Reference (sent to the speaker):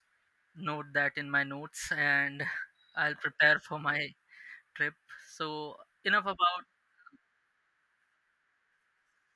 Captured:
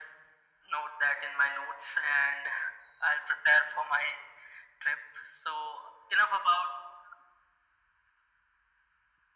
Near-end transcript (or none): none